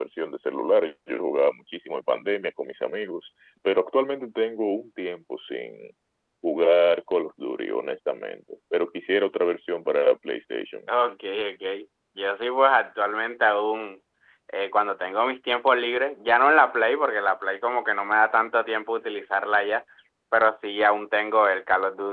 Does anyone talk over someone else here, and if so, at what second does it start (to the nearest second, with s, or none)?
none